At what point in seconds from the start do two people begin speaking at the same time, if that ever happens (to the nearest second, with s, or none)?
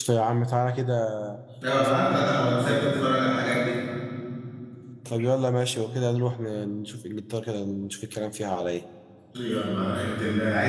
2 s